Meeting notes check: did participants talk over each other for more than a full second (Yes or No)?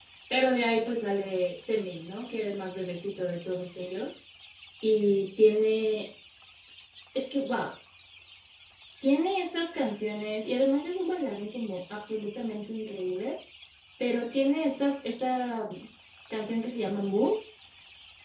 No